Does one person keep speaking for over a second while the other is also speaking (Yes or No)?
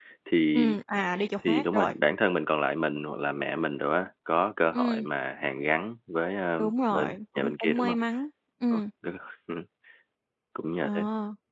Yes